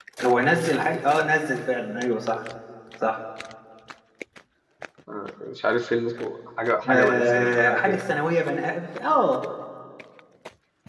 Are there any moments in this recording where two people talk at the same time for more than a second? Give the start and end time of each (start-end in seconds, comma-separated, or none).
6.9-8.1